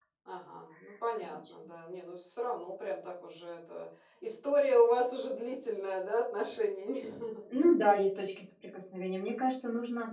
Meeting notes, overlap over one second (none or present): none